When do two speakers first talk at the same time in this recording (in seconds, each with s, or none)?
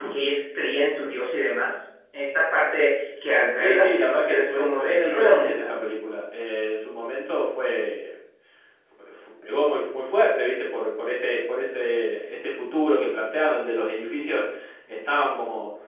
3.6 s